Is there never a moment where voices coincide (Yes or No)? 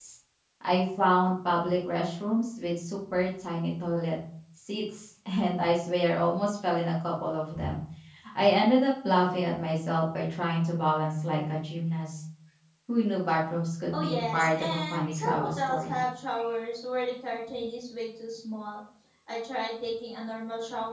No